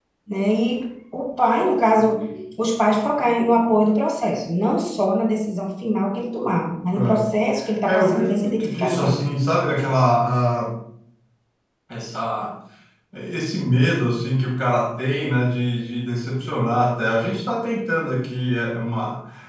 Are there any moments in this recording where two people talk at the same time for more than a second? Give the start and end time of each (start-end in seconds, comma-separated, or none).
7.8-9.2